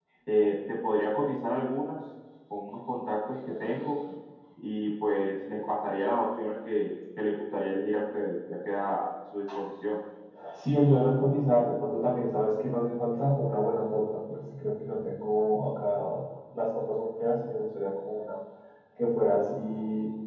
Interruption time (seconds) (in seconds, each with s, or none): none